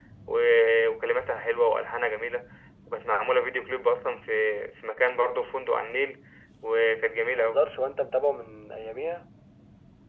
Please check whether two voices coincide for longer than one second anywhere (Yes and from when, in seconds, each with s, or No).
No